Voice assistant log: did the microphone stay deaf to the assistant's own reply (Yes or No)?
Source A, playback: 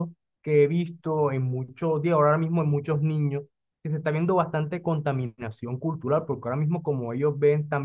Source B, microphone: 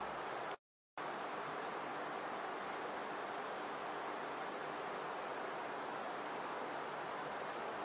Yes